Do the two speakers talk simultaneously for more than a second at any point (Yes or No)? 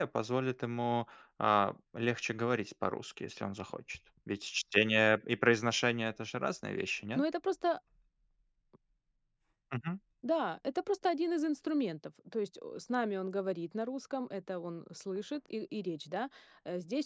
No